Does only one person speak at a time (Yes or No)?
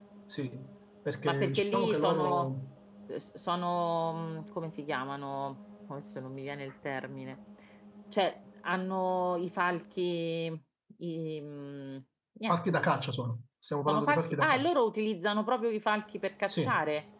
No